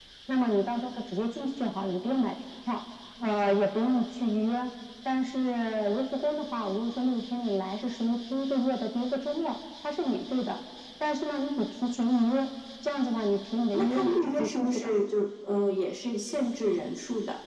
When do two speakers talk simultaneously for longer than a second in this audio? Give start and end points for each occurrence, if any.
13.7-14.9

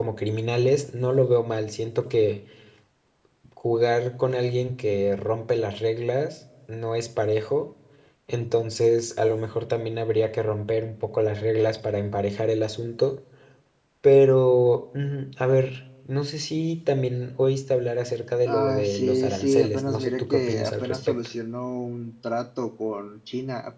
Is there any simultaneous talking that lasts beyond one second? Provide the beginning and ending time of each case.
18.5-21.2

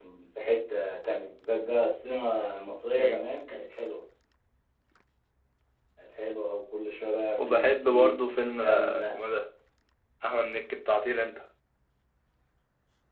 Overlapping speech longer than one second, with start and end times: 7.4-9.2

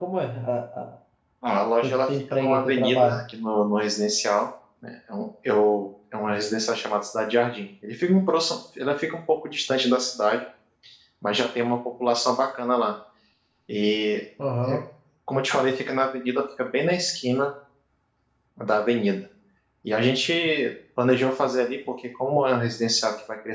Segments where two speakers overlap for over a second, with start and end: 1.8-3.2

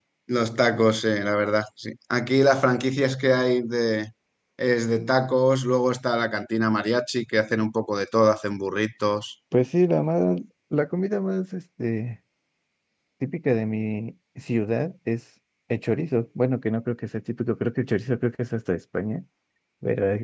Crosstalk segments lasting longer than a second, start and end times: none

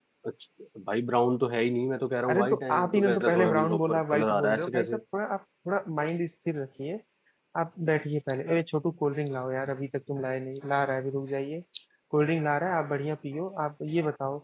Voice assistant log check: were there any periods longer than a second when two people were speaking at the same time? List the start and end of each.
2.3-5.0

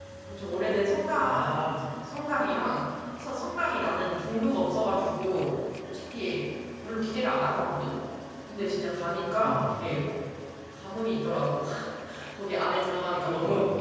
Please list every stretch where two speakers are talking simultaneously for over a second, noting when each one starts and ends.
none

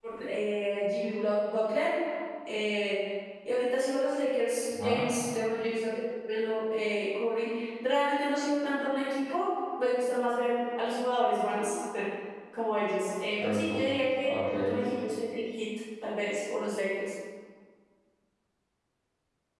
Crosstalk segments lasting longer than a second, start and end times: 13.4-14.9

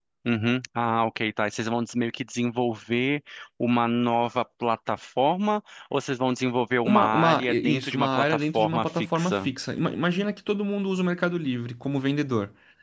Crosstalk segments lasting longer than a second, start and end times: 6.8-9.5

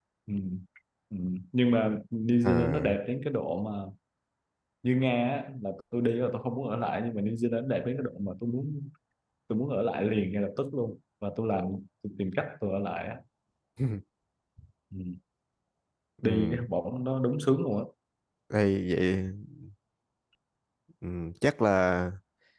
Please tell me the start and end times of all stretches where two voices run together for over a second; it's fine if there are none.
none

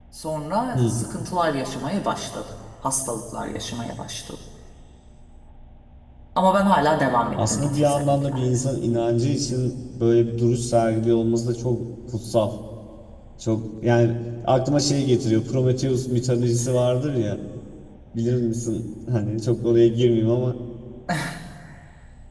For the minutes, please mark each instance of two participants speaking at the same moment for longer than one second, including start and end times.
7.3-8.6

